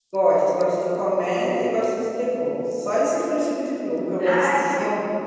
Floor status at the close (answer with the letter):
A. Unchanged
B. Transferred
B